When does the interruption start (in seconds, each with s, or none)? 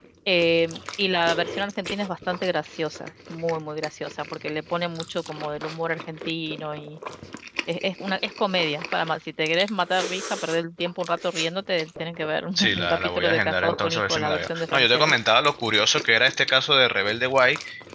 12.6 s